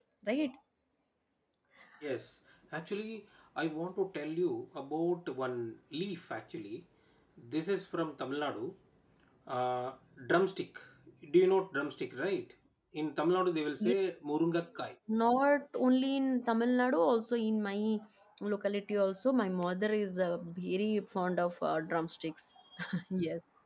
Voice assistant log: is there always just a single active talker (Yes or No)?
Yes